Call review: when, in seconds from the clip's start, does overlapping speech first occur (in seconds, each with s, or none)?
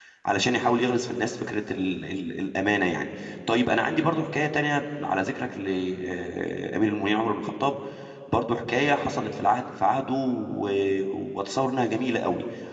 none